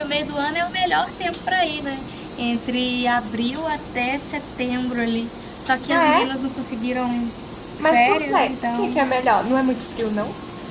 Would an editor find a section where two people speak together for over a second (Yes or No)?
Yes